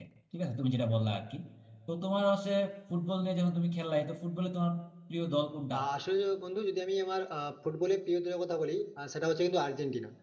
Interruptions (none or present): none